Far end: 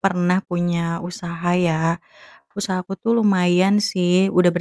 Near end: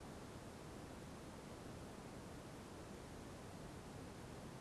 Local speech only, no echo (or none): none